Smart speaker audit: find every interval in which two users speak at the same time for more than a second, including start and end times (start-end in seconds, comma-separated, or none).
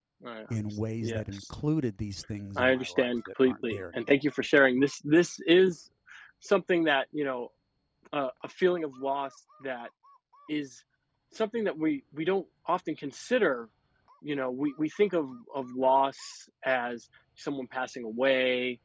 2.6-4.2